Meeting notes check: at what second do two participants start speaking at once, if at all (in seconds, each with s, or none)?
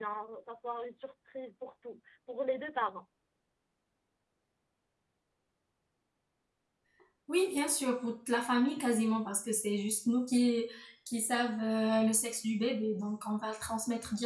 none